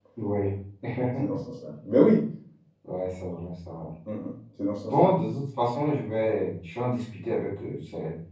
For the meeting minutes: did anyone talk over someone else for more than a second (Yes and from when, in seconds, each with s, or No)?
No